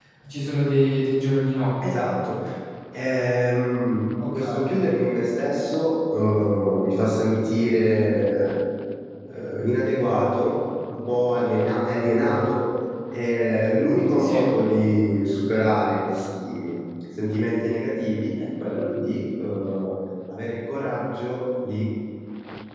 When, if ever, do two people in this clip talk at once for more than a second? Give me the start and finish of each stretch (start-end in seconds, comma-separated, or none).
none